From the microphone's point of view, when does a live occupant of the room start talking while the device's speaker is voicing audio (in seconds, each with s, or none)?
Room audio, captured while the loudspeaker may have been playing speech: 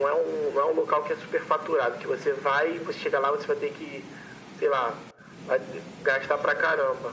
none